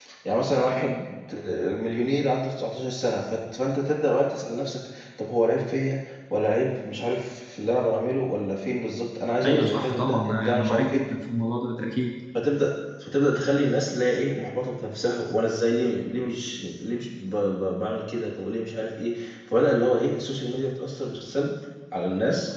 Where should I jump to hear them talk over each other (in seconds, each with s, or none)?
9.4 s